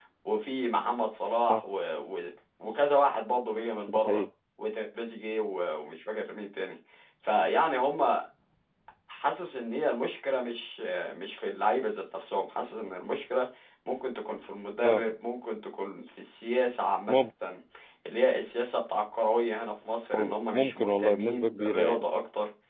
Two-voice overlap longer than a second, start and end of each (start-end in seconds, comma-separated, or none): 20.1-22.1